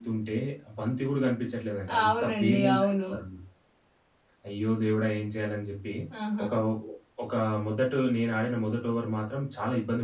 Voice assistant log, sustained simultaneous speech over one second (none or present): present